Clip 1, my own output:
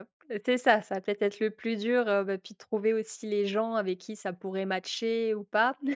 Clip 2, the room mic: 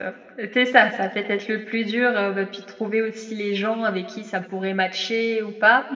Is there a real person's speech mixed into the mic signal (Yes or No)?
No